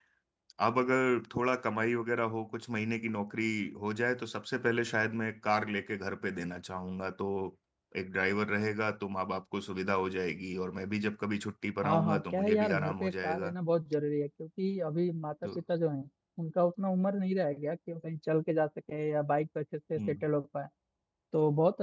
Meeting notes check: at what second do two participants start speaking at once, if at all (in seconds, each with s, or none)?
11.8 s